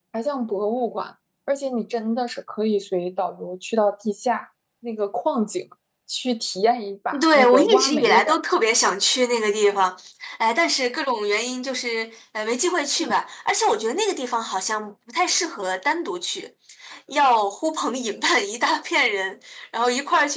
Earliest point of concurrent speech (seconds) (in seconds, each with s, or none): 7.1 s